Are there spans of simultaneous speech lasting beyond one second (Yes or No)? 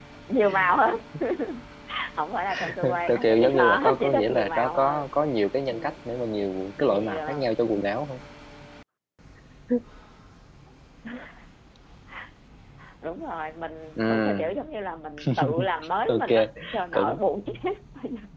Yes